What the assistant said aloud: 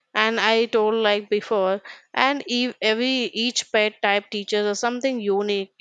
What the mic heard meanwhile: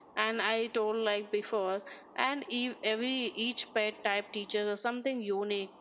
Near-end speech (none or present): none